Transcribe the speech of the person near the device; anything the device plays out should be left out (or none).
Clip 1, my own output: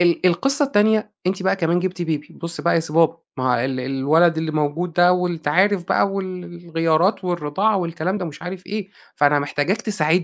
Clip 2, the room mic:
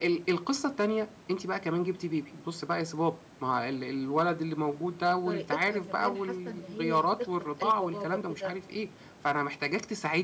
طريقتها كمان حاسّة إن هي هتخطف قلب بابا كده